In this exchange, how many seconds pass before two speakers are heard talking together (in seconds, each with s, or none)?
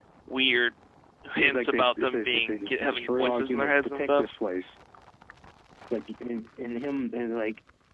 1.4 s